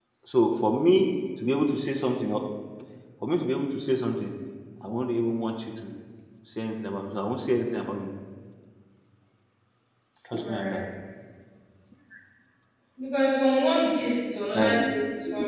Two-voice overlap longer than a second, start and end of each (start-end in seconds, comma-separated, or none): none